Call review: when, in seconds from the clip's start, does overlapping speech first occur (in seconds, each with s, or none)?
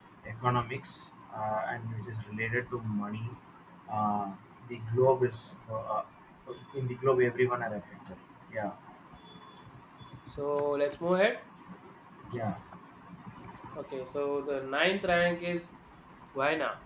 none